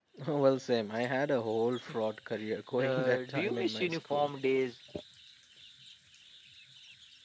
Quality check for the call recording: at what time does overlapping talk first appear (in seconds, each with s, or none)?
2.8 s